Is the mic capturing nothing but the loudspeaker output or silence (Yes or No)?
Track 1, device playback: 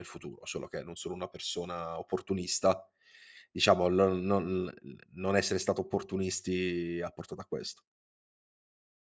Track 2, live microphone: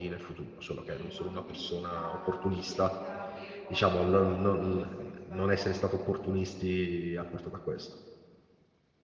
No